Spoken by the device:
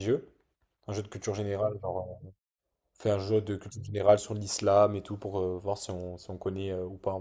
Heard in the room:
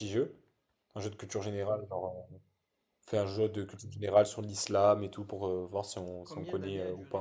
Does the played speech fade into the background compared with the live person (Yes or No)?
No